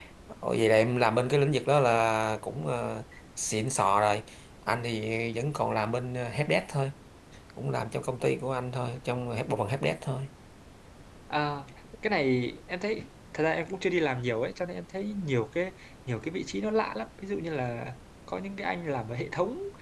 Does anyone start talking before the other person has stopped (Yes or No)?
No